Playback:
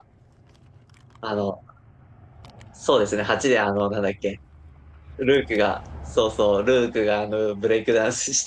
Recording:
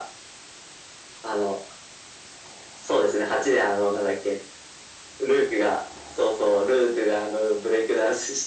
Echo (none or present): present